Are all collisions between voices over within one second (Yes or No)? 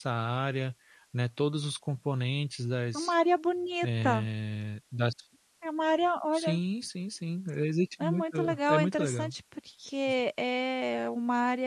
No